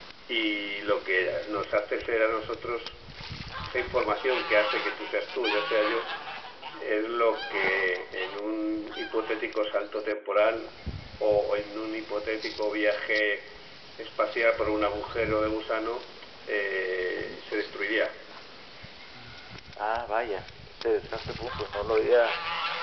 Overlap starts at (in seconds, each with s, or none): none